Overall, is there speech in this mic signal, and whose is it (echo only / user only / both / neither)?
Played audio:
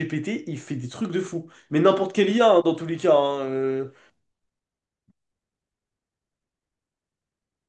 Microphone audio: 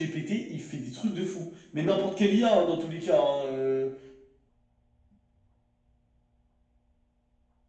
echo only